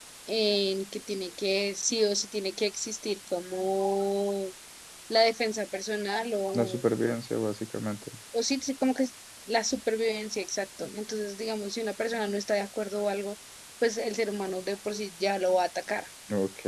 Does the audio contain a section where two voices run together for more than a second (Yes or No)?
No